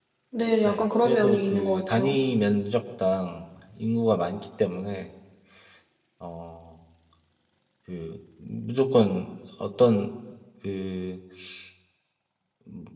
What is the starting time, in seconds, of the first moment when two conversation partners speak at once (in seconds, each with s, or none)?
0.6 s